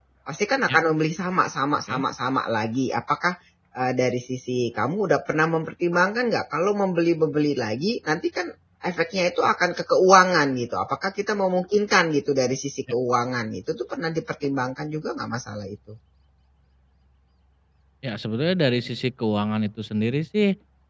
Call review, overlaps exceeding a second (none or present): none